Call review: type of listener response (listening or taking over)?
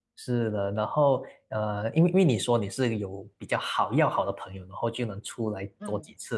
listening